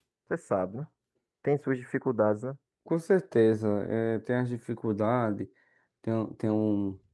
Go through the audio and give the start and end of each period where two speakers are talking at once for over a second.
none

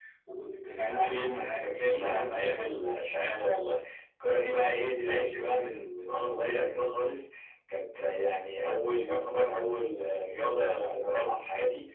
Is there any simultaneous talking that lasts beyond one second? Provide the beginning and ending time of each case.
0.8-2.7

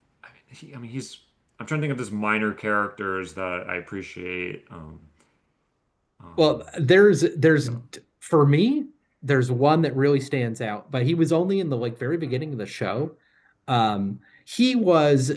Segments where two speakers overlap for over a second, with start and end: none

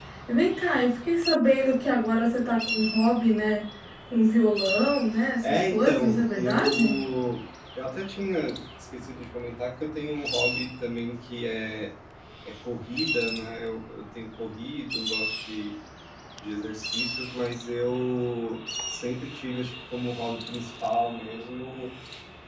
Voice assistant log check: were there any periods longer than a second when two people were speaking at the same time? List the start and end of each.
5.4-7.0

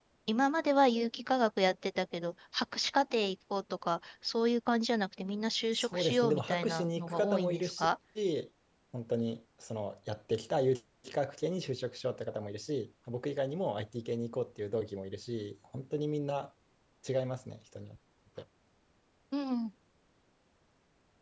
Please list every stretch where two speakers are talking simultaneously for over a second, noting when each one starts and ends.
5.7-7.9

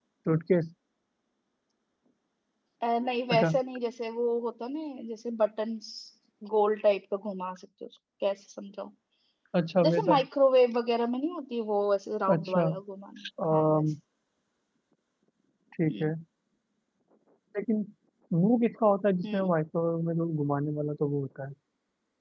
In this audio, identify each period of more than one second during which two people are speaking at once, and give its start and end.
none

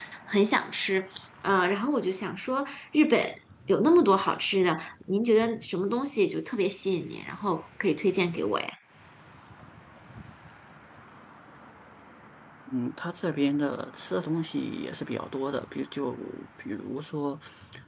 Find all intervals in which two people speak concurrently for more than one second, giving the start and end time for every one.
none

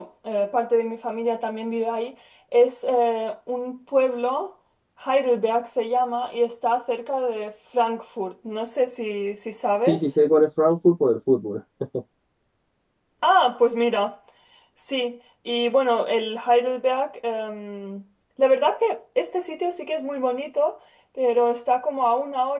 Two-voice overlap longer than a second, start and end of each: none

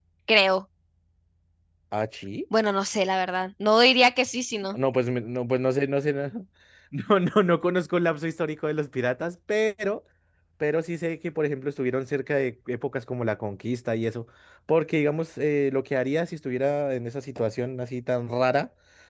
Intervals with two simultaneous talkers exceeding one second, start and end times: none

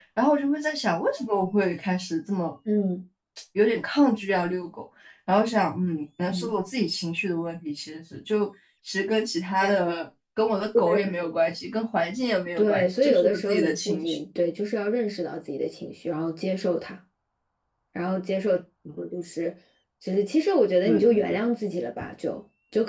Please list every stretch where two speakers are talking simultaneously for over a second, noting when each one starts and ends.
12.6-14.2

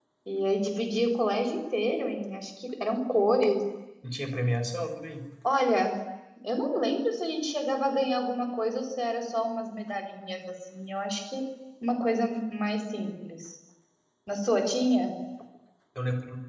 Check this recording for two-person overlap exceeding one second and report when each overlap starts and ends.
none

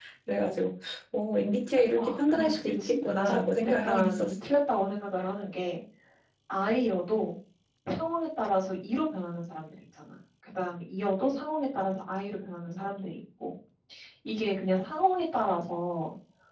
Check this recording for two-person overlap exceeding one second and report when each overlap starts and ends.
2.0-4.4

